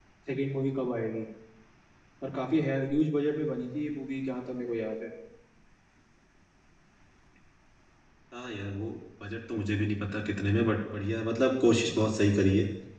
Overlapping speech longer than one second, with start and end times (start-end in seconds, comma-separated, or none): none